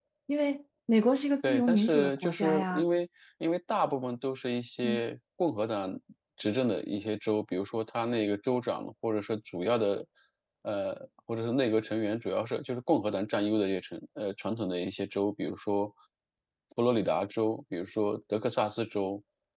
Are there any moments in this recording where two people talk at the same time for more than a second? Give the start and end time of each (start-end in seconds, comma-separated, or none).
1.4-2.8